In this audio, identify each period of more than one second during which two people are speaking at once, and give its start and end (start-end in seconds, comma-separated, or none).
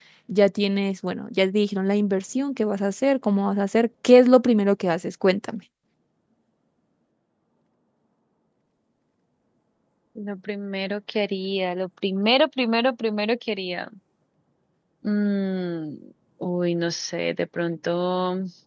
none